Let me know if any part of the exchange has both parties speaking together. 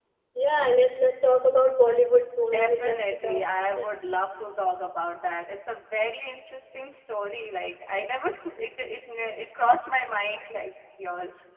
Yes, from 2.4 s

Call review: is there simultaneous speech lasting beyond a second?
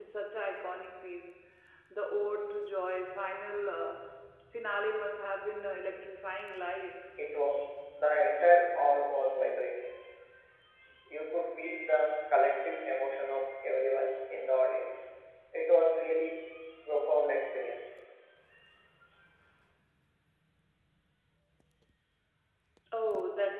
No

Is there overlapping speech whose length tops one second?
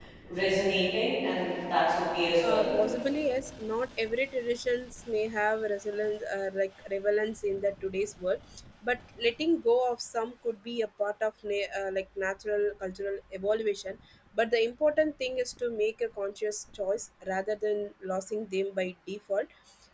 No

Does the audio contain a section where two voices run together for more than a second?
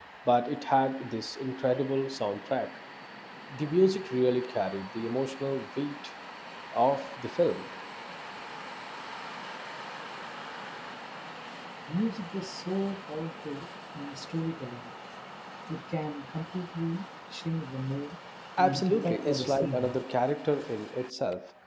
Yes, from 18.6 s

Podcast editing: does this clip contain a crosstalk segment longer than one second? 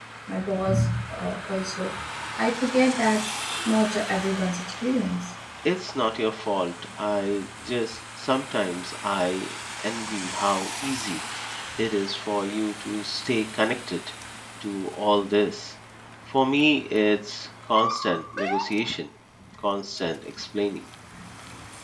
No

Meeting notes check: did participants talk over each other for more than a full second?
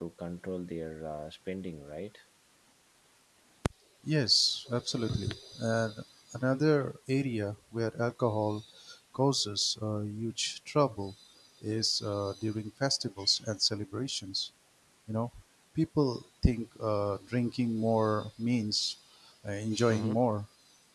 No

